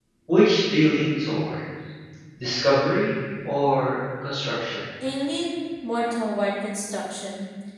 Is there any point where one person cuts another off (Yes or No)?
No